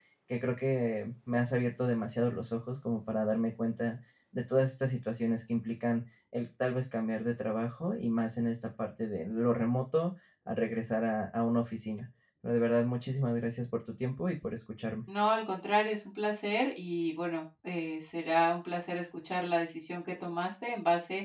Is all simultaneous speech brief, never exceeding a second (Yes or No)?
Yes